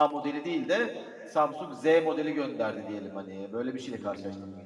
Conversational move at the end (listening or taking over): taking over